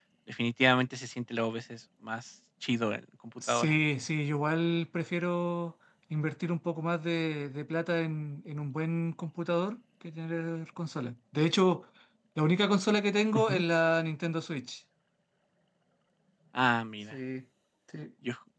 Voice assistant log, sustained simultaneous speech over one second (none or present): none